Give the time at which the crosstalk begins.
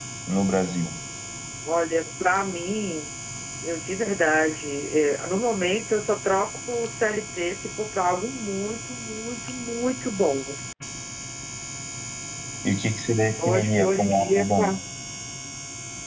13.4 s

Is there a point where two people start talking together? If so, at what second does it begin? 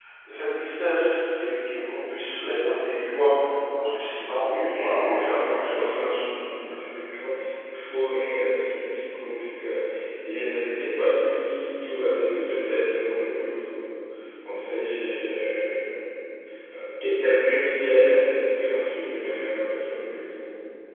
4.5 s

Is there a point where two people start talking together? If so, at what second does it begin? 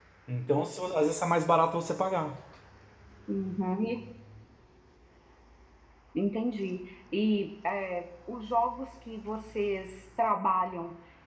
none

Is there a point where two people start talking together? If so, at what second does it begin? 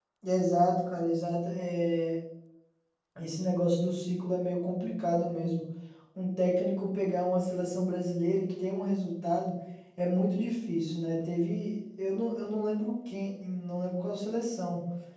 none

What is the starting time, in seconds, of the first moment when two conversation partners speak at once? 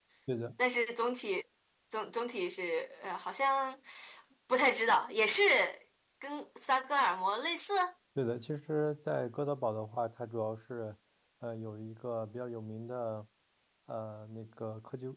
none

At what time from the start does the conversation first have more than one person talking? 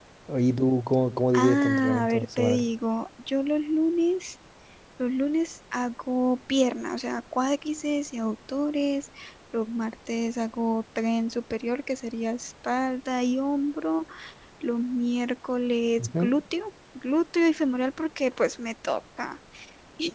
1.3 s

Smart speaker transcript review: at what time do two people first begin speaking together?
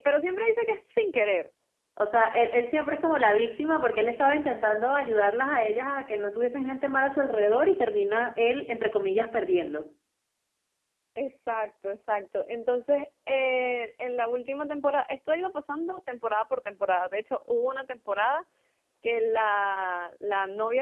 none

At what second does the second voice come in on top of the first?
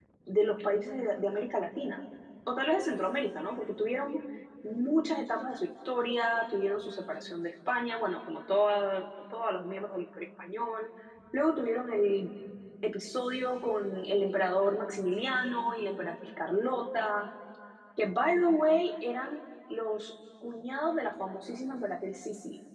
none

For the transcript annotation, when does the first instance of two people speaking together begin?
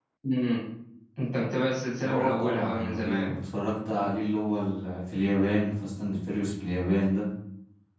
2.0 s

